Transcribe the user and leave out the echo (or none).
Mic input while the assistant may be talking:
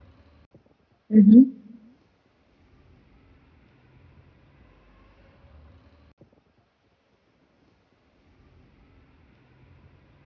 Mh-mh.